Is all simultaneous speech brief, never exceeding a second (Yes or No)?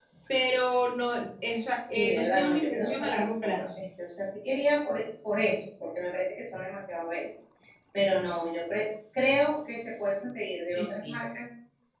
No